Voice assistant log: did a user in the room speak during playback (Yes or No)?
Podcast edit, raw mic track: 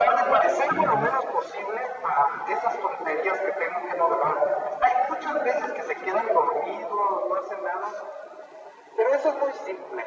Yes